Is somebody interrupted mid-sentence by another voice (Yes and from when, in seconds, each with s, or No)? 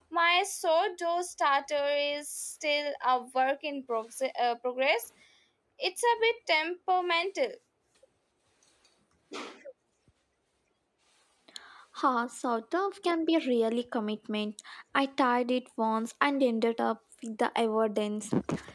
No